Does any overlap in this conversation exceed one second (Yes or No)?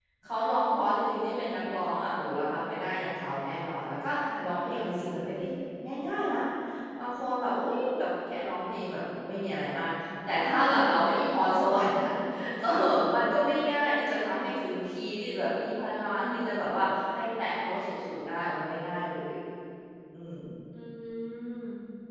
No